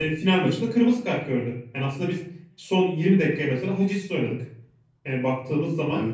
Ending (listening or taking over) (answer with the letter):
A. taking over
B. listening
B